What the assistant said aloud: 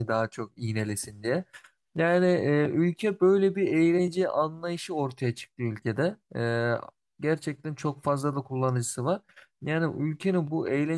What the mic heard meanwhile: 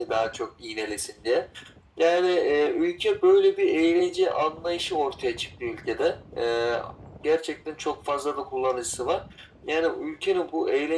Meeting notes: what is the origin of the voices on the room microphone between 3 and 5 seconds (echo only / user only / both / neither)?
echo only